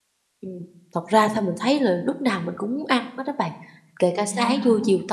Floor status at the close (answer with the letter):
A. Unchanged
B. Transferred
A